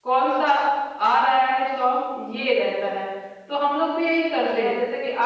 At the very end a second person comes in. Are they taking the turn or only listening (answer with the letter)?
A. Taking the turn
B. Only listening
B